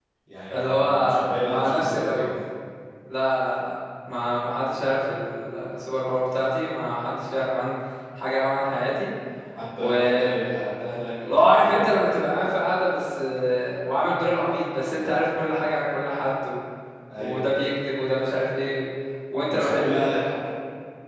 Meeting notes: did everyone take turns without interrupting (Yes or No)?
No